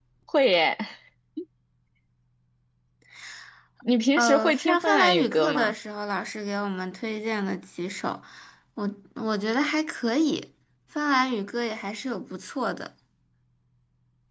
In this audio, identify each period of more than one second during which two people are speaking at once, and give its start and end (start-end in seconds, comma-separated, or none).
4.2-5.7